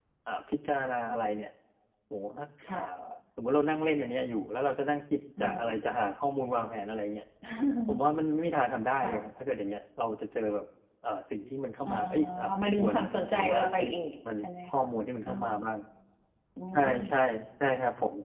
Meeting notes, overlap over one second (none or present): present